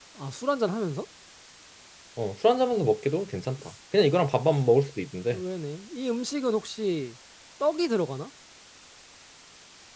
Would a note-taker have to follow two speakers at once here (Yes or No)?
No